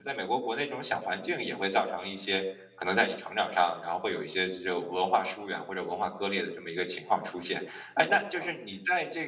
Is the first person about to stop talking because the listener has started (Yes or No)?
No